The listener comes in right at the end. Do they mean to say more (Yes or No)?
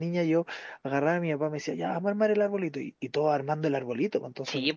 Yes